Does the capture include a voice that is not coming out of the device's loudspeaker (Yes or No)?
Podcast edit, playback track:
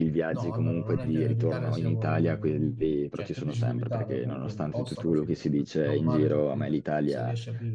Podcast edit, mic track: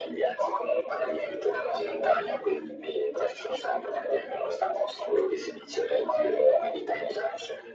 No